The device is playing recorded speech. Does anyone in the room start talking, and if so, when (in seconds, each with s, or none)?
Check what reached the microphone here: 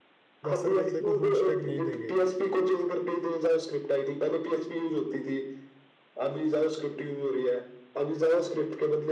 0.4 s